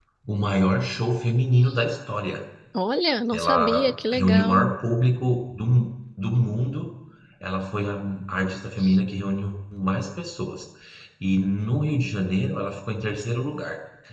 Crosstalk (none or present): present